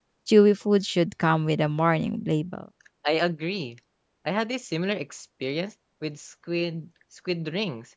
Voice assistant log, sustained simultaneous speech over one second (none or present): none